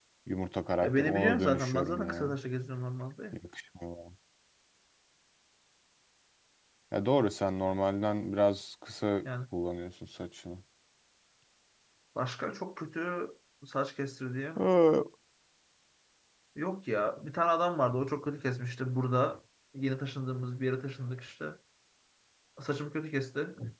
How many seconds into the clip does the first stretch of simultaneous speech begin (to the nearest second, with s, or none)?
1 s